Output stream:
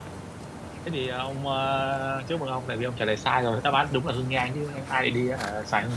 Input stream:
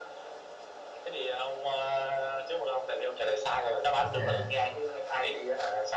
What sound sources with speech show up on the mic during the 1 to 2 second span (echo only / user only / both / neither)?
echo only